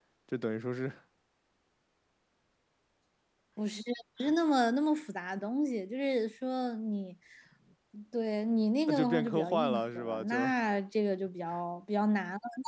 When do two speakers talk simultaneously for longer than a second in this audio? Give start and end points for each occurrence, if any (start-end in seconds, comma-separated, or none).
8.9-10.5